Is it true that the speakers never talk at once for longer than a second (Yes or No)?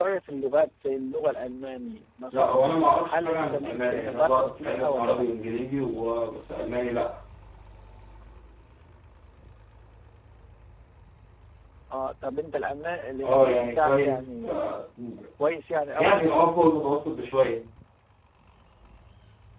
No